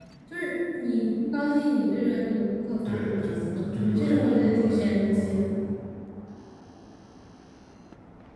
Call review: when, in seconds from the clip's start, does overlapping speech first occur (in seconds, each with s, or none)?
2.9 s